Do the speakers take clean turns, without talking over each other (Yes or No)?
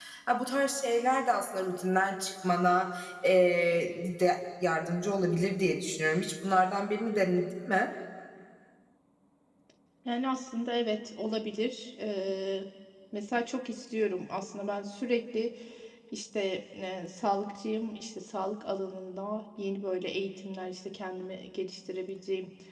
Yes